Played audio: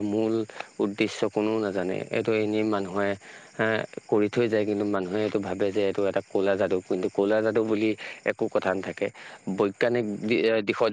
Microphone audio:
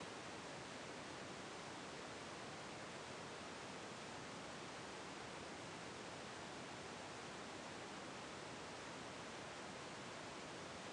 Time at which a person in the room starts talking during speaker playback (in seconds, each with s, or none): none